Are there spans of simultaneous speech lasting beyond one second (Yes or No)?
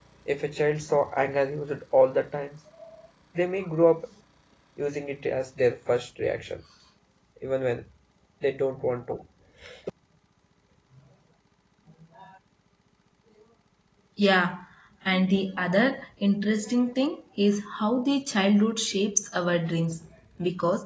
No